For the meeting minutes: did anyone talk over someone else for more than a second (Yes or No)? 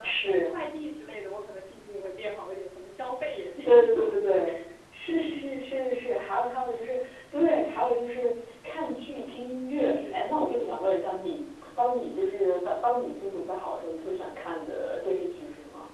No